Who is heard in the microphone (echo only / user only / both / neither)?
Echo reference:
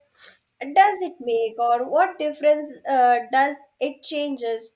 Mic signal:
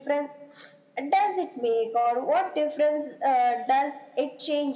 echo only